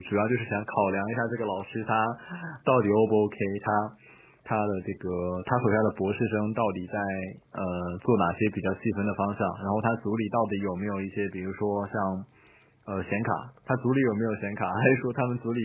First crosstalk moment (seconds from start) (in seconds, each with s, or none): none